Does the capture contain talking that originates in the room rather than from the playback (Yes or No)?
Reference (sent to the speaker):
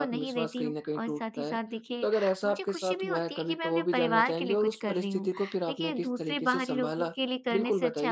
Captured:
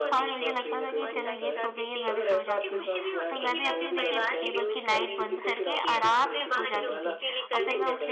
Yes